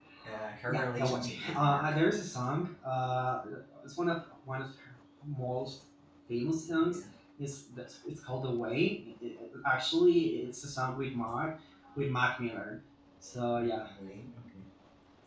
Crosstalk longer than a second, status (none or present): present